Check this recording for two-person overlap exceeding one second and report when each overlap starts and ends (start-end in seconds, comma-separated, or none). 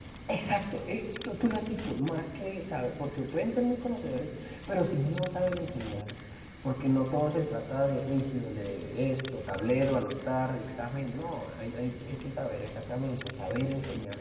none